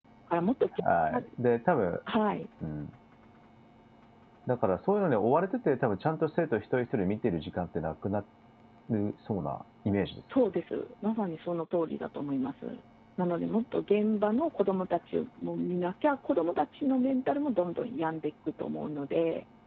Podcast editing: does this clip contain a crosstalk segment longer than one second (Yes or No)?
No